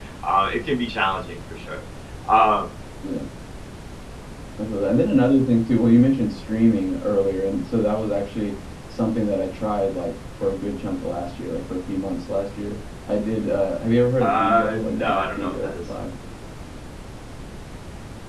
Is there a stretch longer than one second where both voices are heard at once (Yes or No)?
Yes